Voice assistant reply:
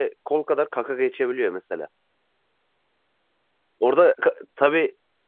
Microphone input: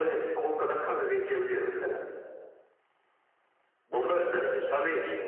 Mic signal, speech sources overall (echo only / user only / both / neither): both